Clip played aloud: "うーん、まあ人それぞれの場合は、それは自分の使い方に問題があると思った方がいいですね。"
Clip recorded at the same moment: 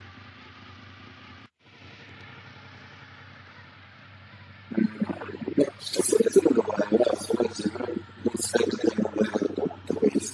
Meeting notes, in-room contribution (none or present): none